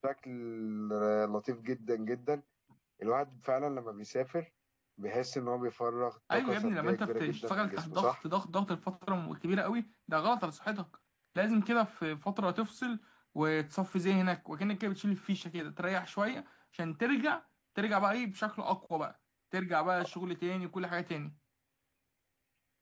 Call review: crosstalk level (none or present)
present